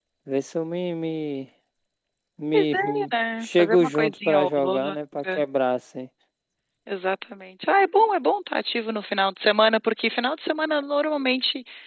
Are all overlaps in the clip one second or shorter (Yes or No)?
No